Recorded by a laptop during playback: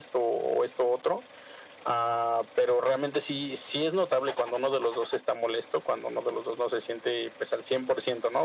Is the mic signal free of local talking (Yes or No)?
Yes